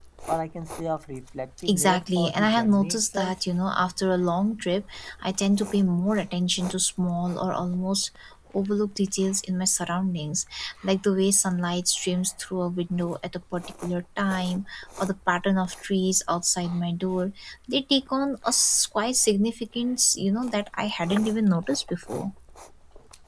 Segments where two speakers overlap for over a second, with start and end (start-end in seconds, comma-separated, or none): 1.7-3.3